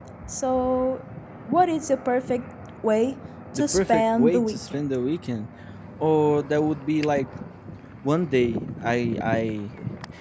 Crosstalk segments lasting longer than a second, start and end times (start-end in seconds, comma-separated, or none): 3.6-4.8